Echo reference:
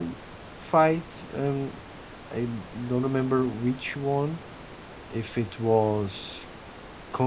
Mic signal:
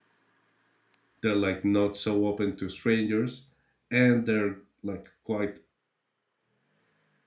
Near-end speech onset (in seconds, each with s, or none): 1.2 s